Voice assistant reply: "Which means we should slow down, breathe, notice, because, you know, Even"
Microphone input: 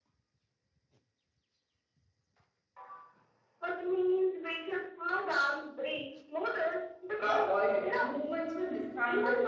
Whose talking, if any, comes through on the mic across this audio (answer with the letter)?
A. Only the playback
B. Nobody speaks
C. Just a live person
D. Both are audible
D